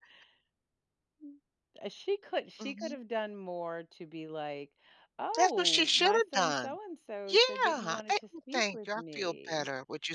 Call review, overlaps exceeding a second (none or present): present